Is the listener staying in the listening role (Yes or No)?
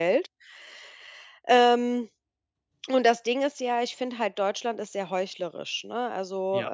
Yes